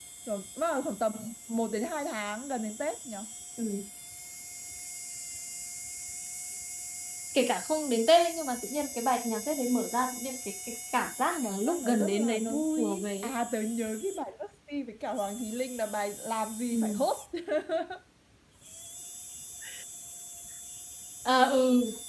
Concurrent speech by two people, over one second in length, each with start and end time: 11.4-13.3

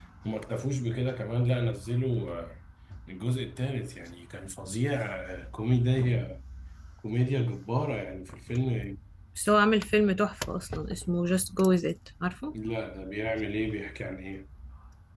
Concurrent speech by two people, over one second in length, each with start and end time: none

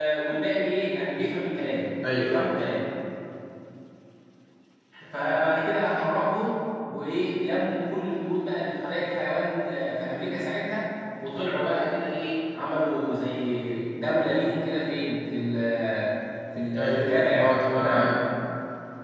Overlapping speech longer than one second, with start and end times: 16.8-18.1

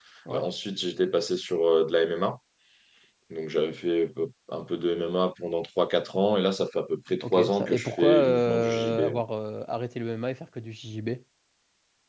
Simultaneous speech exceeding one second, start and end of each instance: 7.2-9.2

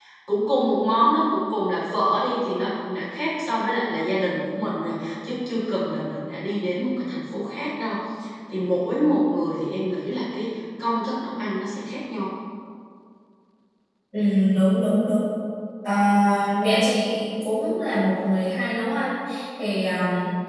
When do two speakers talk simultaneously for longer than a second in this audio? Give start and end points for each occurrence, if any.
none

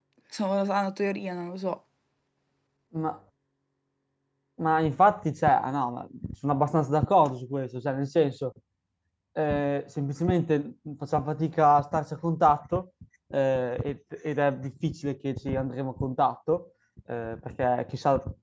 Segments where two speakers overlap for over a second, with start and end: none

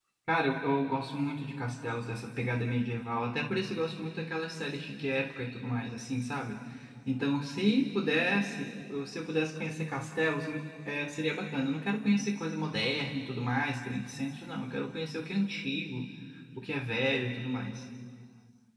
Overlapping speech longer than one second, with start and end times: none

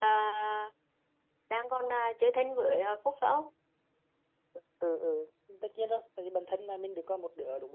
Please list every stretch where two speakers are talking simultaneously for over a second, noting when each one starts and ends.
none

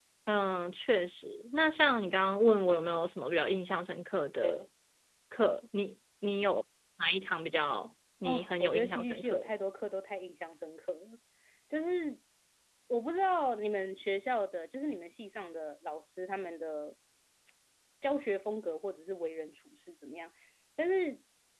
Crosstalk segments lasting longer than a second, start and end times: 8.2-9.5

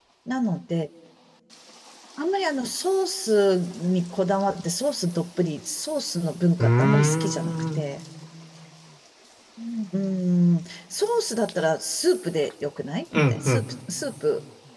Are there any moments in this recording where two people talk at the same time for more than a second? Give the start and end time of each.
6.6-7.8

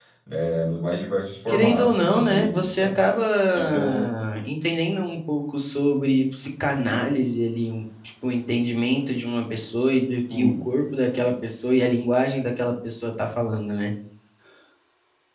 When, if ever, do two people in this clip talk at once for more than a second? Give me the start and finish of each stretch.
1.5-3.0

